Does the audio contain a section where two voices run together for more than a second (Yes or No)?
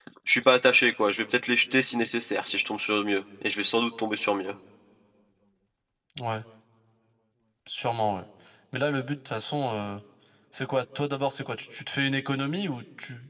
No